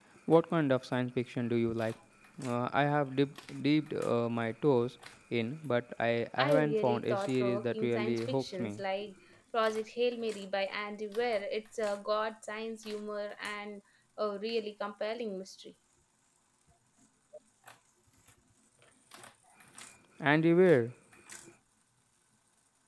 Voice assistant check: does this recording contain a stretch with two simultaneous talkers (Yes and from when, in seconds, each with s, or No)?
Yes, from 6.4 s